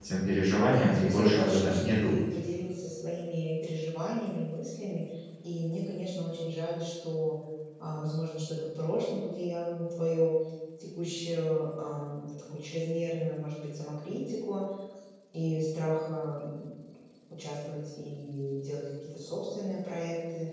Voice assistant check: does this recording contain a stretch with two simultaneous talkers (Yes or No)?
Yes